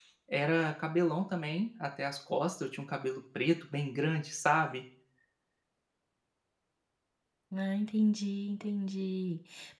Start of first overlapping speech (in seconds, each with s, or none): none